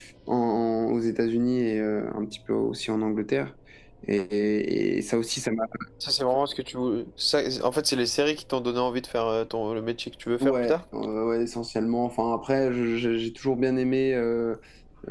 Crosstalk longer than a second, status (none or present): none